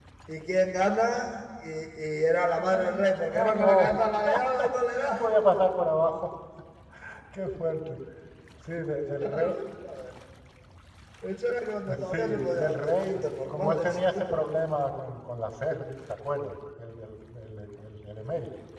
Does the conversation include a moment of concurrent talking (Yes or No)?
Yes